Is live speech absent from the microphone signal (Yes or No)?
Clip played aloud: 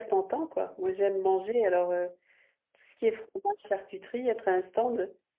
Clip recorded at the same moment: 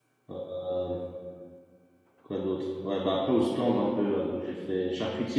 No